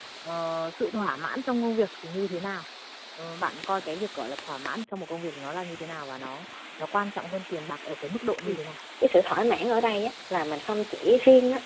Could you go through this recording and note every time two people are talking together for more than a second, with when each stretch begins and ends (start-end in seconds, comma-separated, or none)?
none